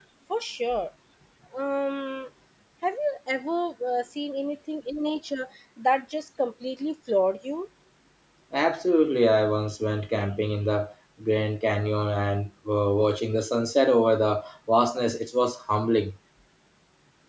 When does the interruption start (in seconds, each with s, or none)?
none